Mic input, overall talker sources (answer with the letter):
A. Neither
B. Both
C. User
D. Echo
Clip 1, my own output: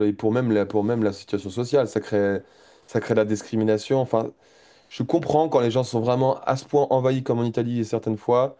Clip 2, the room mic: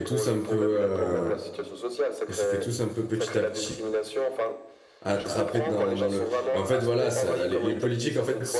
B